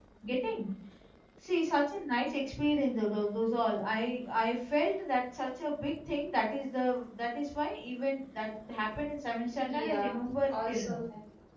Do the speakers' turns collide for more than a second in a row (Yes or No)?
Yes